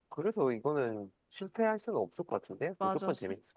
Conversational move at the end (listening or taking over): taking over